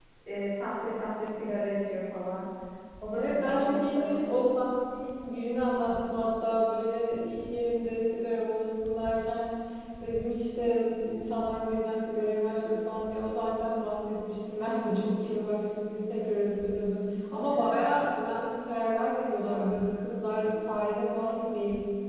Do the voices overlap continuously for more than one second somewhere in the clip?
Yes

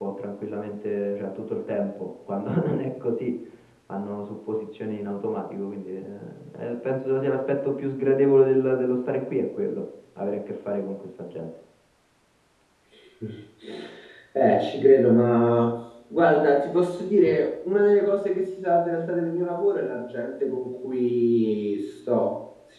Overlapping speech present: No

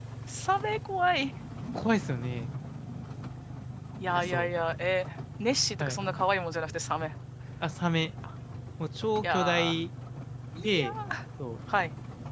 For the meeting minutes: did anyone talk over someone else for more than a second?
No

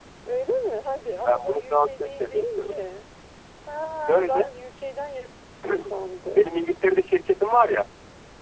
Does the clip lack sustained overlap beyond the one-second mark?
No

